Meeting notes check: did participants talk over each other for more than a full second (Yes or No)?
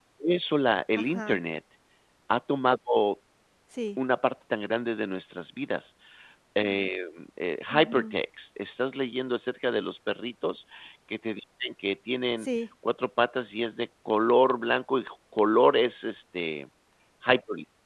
No